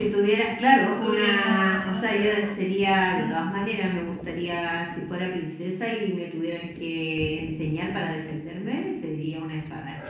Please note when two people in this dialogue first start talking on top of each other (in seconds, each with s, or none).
0.8 s